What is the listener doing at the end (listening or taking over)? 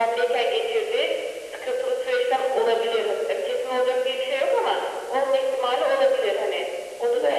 taking over